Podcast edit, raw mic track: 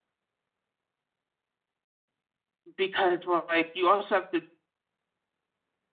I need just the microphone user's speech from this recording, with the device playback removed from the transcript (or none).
because, well, like, you also have to